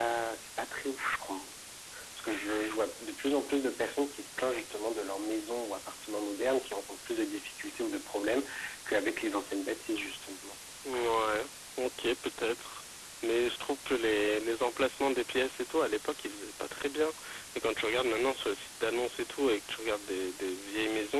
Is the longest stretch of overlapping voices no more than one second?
Yes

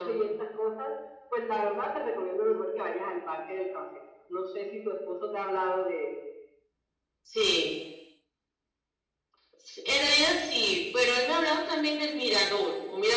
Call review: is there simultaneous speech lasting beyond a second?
No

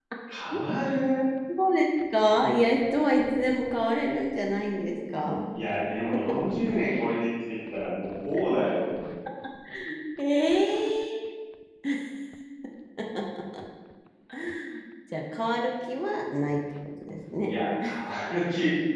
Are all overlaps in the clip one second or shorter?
Yes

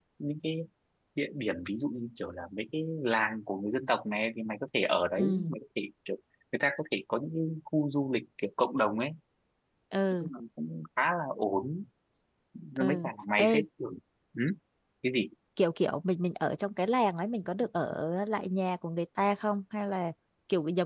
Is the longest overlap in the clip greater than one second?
No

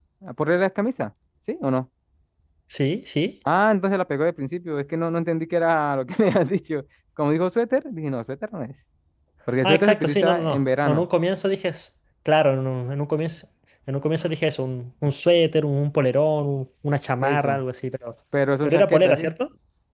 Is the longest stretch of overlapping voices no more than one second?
No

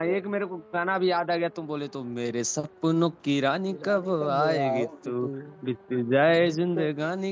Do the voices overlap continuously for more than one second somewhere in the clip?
Yes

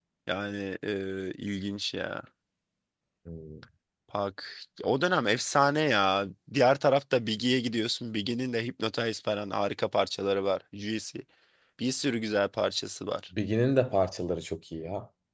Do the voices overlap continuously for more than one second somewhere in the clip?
No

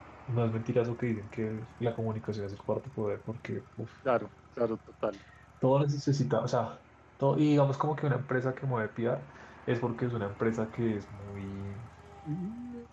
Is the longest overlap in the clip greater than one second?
No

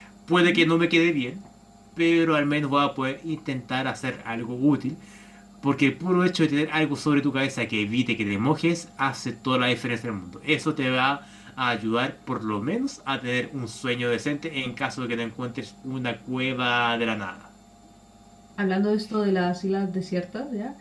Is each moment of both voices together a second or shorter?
Yes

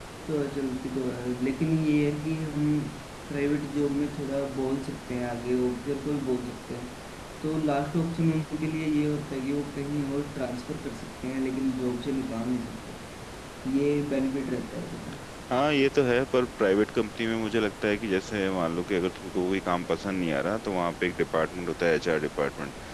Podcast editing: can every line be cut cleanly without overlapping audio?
Yes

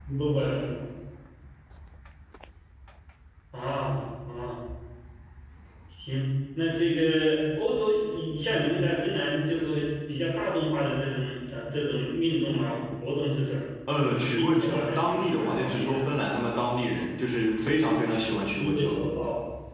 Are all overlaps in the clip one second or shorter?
No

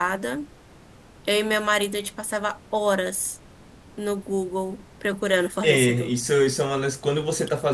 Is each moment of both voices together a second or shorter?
Yes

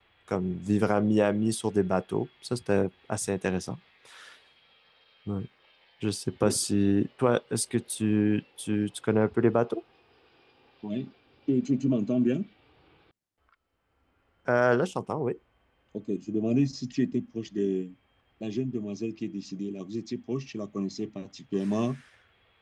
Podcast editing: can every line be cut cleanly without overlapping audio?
Yes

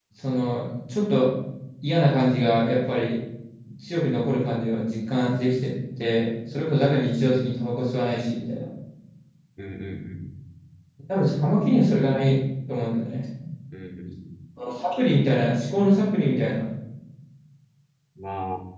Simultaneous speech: No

